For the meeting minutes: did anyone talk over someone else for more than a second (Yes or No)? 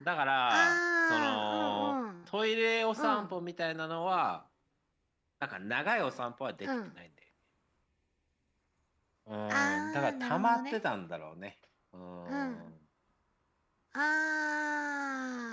Yes